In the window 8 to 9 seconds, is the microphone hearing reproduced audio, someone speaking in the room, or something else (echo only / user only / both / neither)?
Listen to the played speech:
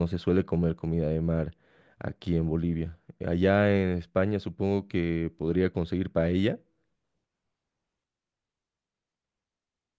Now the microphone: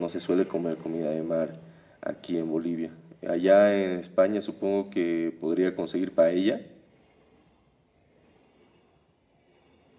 neither